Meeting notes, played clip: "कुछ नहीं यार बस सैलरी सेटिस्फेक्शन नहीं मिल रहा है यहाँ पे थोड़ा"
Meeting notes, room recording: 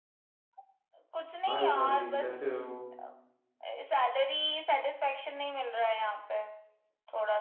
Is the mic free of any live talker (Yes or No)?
No